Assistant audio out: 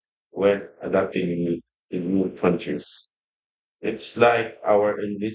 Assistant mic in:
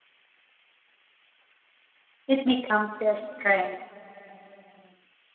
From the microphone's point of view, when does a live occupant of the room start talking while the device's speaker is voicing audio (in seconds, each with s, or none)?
2.3 s